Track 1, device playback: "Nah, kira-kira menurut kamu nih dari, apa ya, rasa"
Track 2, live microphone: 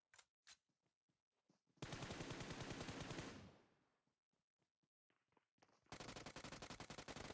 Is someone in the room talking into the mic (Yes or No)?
No